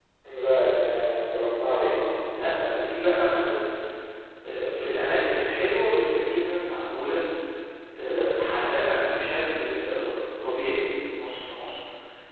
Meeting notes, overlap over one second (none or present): none